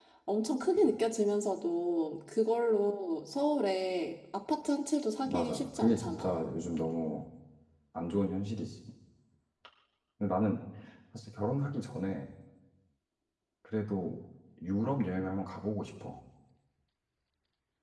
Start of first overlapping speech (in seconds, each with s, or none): 5.2 s